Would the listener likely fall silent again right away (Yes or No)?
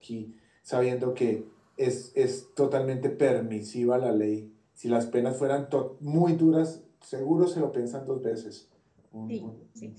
No